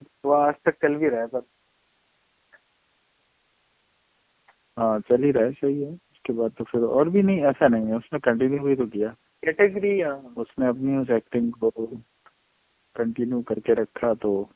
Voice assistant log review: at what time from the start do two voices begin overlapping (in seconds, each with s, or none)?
none